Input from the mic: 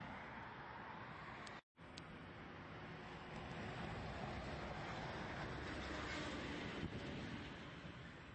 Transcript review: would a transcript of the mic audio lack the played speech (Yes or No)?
Yes